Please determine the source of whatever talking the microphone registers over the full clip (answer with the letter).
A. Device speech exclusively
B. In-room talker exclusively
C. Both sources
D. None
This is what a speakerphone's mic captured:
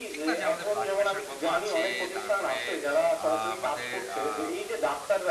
C